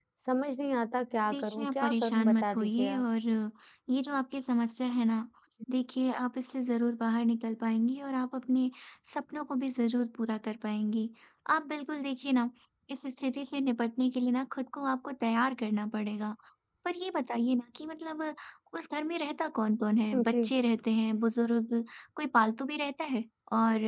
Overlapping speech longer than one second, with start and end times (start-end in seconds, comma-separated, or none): 1.3-3.0